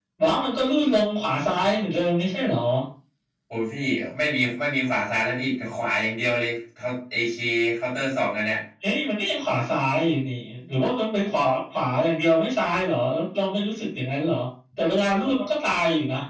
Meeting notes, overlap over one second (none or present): none